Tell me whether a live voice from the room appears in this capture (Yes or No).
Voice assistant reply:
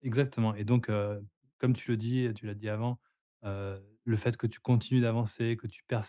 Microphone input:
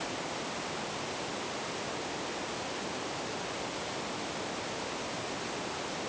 No